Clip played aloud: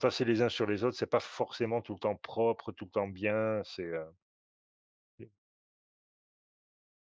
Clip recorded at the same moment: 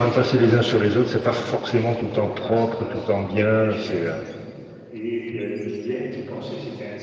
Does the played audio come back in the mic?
Yes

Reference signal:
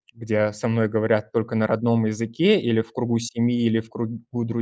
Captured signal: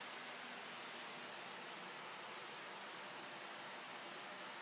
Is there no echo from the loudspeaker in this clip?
Yes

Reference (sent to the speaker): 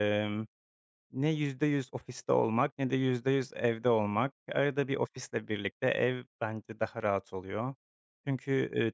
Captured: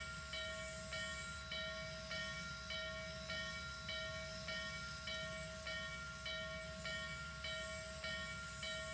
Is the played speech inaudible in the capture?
Yes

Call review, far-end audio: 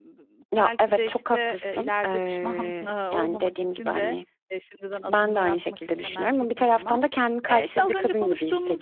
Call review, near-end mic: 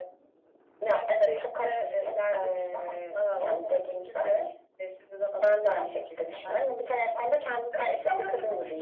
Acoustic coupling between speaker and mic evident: Yes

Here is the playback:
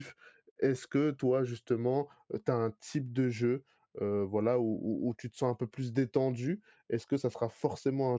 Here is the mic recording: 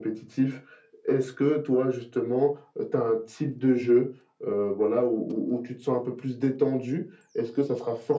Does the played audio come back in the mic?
Yes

